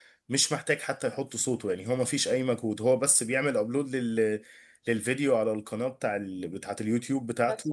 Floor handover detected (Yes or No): No